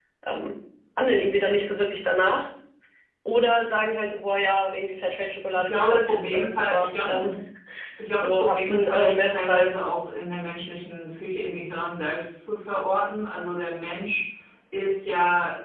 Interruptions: present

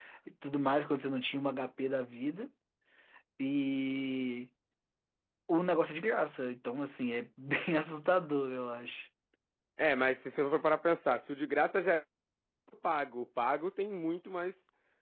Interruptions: none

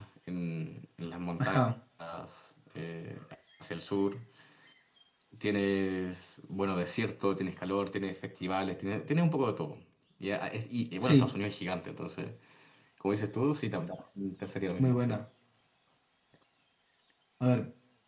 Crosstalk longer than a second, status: none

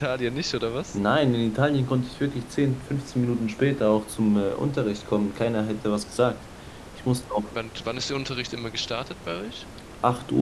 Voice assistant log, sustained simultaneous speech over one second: none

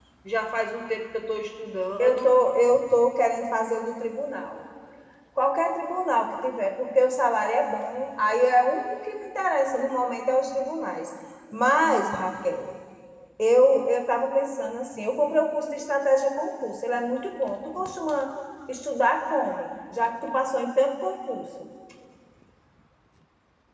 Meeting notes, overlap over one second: none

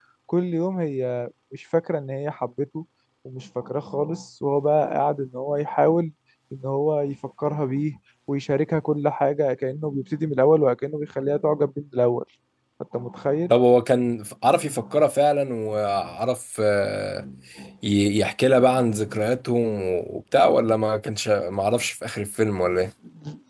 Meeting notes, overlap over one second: none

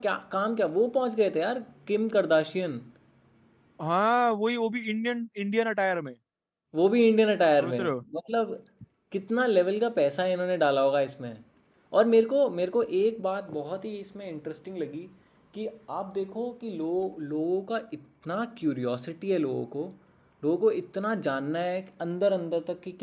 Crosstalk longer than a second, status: none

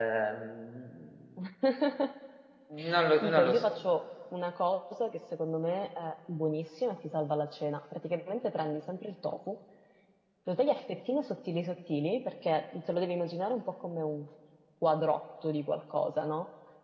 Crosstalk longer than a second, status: none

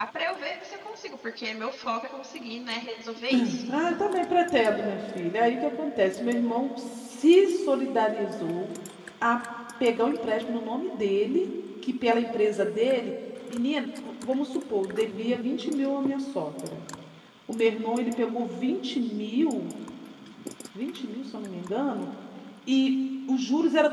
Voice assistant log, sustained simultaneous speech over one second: none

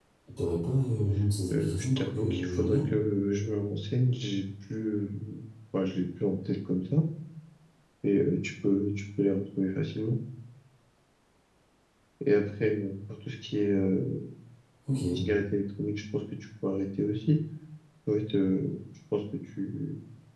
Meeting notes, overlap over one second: present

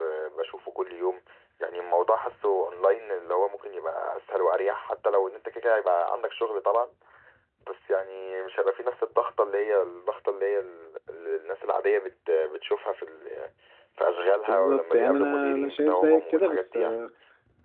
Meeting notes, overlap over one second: present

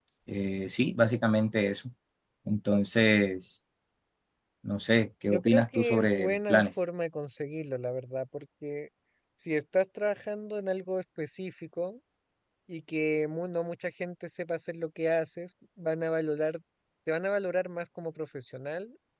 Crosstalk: present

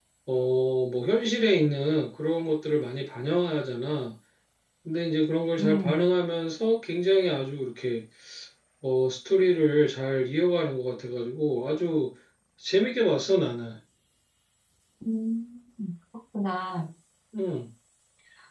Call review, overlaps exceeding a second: none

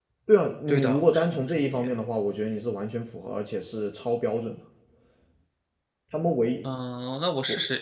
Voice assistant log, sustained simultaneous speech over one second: present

